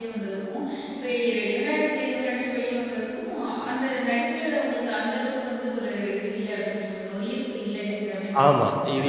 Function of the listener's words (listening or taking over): taking over